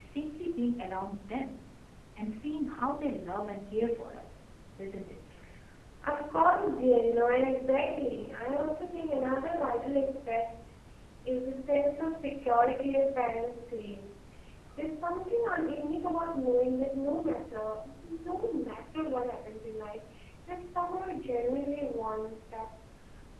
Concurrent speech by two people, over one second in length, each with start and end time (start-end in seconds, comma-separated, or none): none